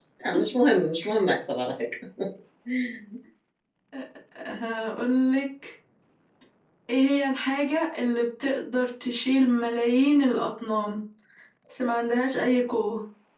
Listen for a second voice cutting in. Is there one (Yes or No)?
No